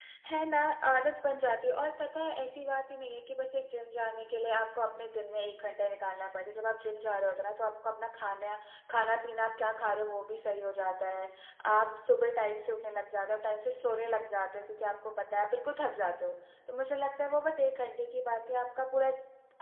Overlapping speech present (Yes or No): No